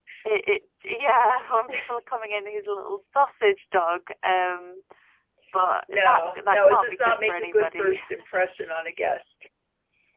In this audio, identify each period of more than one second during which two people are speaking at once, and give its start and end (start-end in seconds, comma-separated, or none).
5.9-8.0